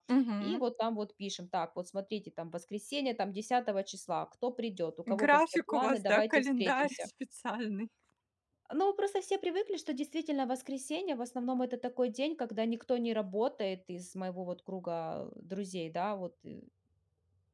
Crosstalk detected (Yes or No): Yes